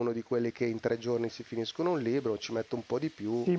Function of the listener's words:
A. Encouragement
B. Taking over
B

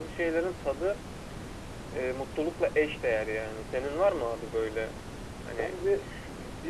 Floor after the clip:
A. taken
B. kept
A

